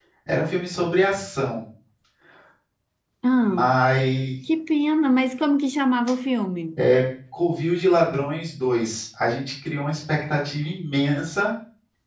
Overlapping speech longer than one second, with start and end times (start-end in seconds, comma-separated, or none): none